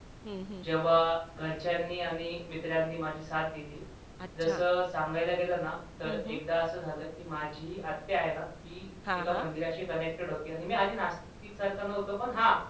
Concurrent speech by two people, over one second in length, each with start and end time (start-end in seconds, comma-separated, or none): none